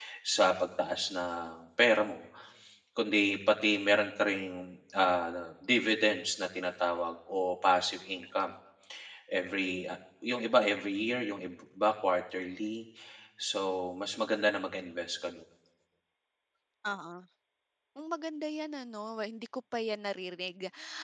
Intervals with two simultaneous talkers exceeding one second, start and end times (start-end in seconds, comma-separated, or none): none